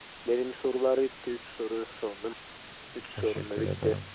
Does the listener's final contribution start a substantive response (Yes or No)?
Yes